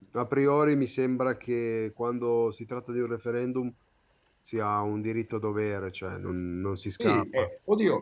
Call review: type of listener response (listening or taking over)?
taking over